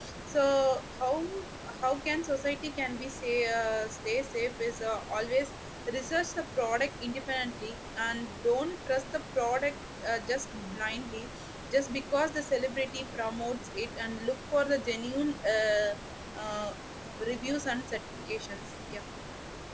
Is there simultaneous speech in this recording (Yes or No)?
No